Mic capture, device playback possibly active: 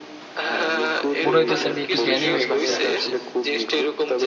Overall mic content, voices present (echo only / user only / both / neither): both